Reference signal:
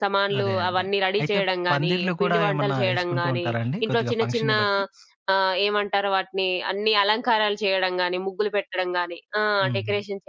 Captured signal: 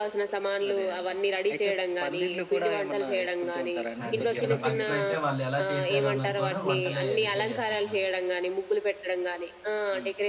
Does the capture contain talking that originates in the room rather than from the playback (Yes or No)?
Yes